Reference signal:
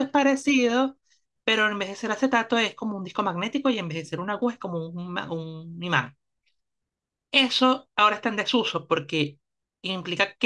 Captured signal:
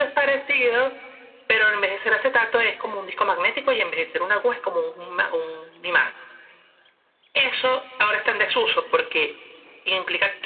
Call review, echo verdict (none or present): present